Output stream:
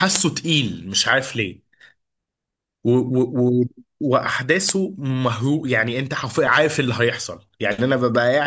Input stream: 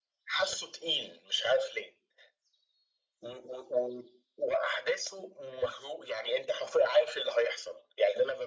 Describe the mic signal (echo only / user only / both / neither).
echo only